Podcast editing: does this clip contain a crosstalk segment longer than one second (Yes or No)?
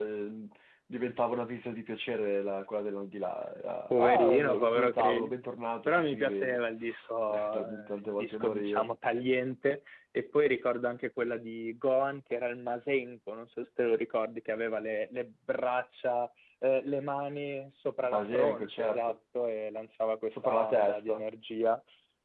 Yes